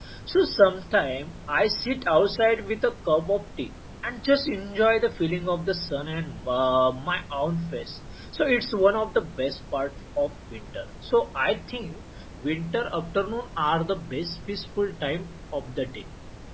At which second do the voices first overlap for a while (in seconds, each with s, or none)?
none